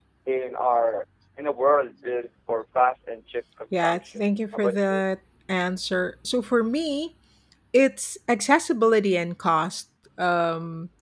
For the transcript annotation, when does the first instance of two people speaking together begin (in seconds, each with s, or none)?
3.7 s